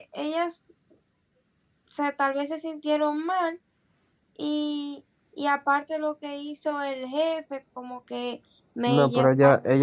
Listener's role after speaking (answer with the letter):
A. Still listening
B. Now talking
B